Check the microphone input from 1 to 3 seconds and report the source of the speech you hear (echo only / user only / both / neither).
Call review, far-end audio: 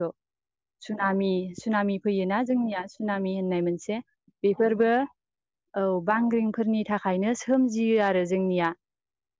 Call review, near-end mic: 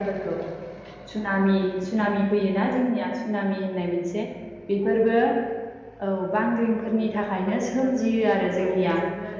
echo only